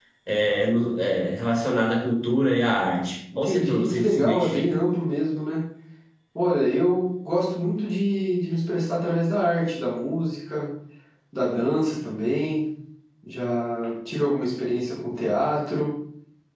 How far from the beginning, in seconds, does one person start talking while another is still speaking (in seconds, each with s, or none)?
3.3 s